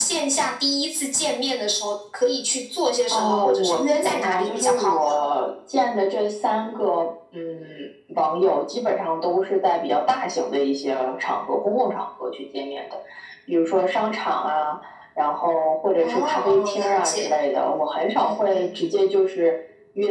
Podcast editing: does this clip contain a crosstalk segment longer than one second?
Yes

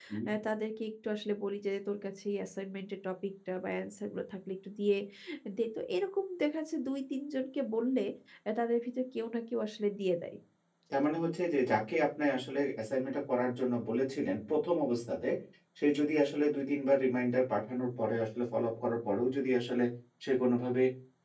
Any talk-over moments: No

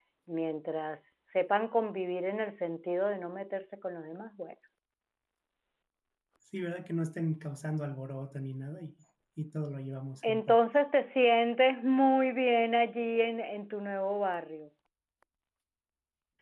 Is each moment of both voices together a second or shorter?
Yes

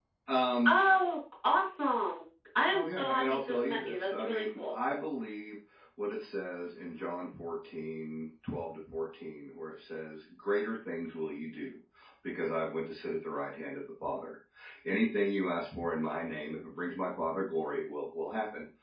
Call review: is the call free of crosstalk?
No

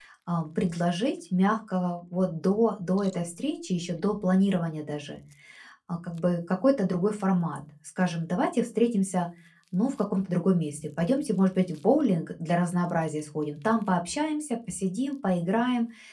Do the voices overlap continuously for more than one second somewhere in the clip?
No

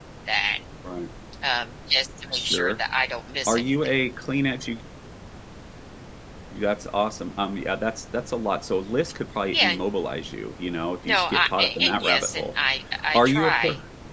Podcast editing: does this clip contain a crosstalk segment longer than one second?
Yes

